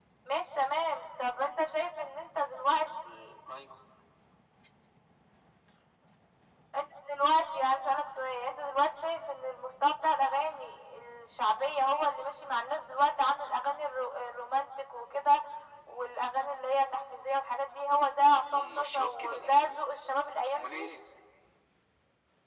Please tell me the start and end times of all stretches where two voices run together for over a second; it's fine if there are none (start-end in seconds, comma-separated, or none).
18.5-19.8